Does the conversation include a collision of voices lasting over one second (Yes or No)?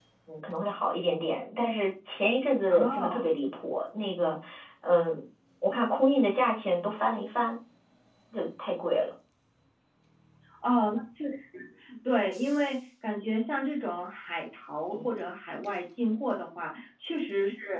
No